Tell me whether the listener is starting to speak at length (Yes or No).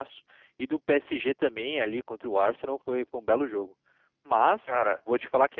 No